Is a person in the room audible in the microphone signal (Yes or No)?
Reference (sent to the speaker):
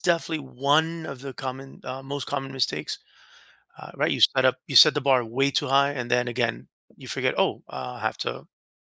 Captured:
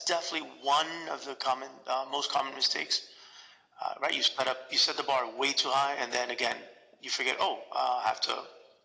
No